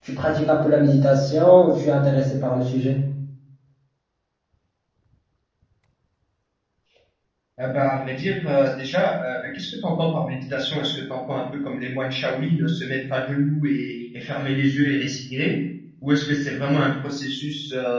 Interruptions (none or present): none